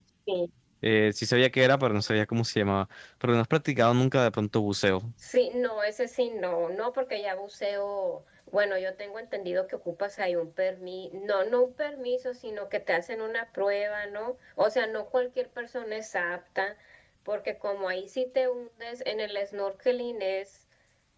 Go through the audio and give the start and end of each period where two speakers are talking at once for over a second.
none

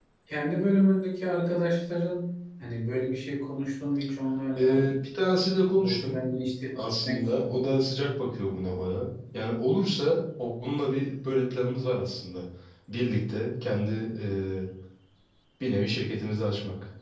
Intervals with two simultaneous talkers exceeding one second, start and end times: none

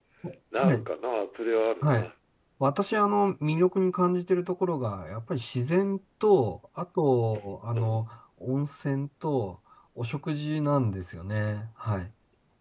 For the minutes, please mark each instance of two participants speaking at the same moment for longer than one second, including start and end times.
none

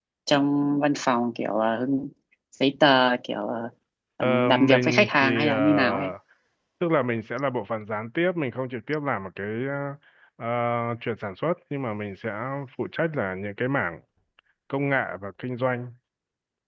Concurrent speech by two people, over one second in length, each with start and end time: 4.2-6.1

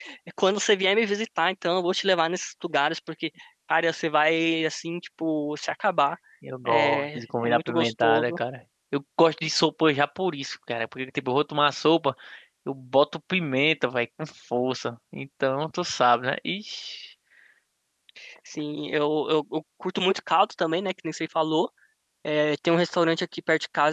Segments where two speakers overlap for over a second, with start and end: 6.7-8.4

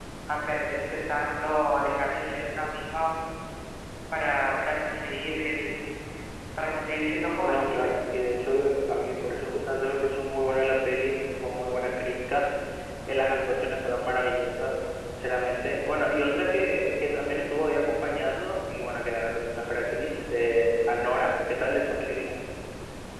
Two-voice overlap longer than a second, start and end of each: none

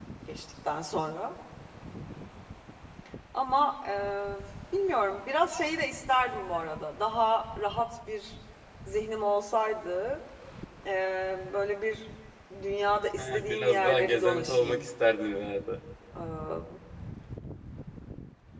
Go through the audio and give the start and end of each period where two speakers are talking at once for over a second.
13.2-14.9

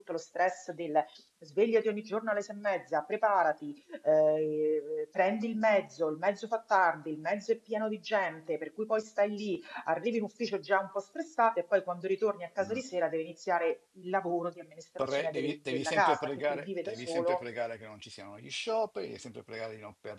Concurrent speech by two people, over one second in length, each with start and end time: 15.1-17.4

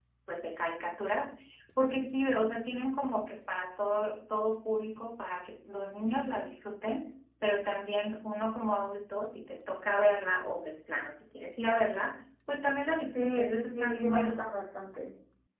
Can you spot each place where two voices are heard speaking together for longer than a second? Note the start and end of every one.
13.1-14.4

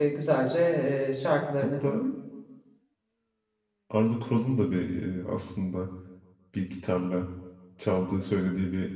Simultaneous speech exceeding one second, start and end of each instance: none

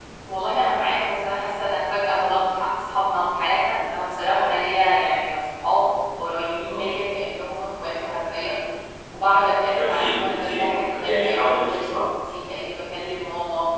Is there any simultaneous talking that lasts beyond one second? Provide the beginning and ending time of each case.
9.8-12.0

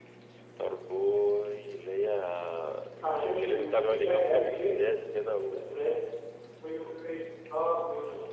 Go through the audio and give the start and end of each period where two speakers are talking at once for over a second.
3.1-4.8

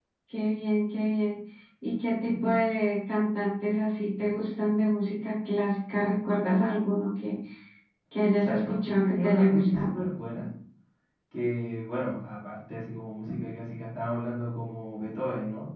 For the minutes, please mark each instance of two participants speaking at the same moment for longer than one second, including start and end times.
8.4-9.9

